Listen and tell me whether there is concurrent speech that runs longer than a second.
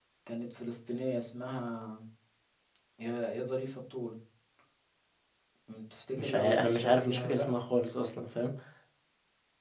Yes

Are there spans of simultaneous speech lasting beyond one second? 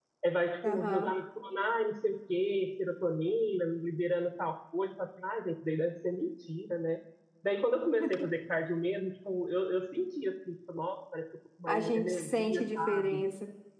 Yes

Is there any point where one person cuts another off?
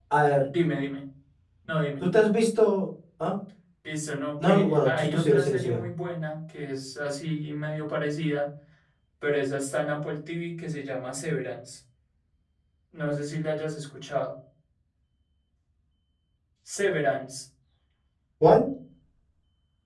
Yes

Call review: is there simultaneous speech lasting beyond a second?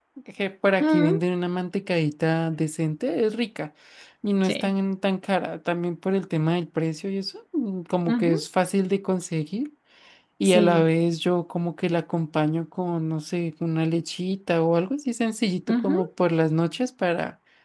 No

